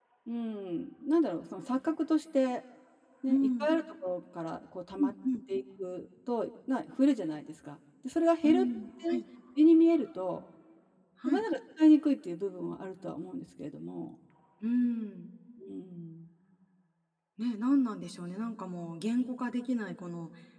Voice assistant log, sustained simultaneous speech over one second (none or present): none